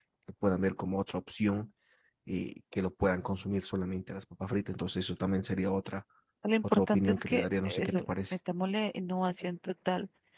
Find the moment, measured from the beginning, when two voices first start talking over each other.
7 s

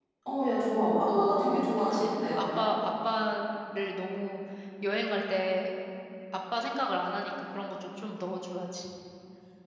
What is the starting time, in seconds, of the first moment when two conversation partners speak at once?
1 s

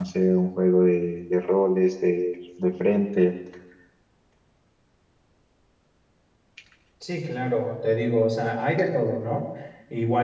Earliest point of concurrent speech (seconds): none

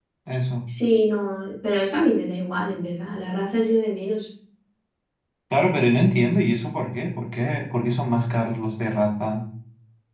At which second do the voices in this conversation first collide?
none

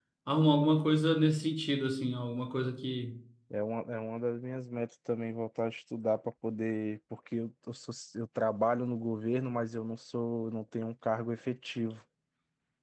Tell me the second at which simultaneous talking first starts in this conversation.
none

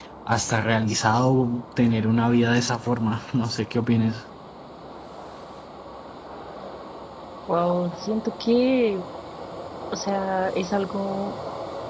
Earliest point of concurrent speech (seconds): none

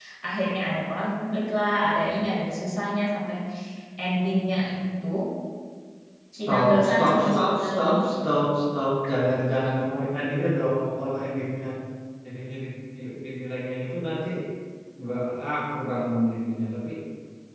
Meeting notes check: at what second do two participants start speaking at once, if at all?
6 s

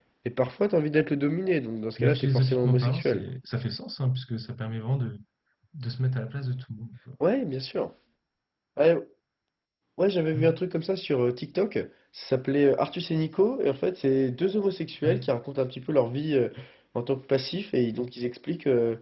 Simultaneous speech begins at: 2 s

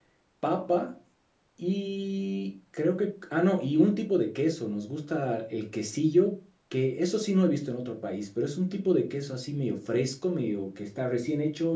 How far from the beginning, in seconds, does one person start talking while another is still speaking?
none

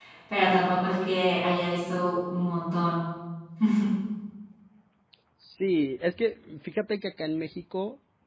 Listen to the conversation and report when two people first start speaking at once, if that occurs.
none

